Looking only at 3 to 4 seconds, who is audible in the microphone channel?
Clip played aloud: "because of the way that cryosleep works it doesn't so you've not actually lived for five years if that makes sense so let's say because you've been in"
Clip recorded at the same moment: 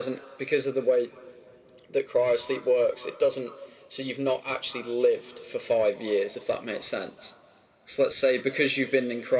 echo only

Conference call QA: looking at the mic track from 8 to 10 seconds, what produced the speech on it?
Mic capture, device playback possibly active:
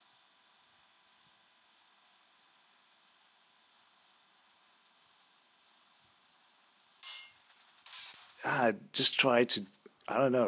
user only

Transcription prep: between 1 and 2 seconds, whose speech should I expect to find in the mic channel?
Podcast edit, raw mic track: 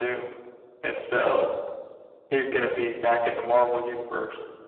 echo only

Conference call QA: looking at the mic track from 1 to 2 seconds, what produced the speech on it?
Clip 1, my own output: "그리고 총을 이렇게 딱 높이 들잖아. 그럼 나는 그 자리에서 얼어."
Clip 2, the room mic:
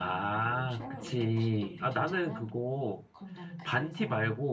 both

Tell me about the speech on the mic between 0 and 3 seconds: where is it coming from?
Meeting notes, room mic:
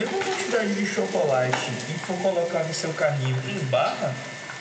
echo only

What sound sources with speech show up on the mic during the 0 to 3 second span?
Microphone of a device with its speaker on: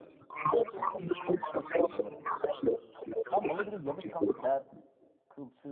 both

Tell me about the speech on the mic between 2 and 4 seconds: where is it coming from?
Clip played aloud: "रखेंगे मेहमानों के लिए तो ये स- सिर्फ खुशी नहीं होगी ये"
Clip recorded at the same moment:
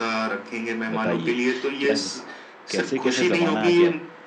both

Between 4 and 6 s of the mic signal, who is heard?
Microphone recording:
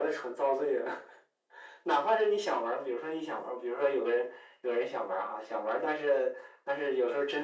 echo only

